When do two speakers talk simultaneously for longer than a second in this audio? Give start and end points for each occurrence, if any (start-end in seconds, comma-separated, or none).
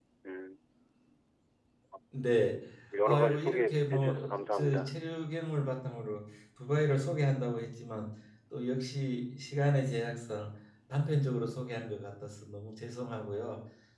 3.0-5.0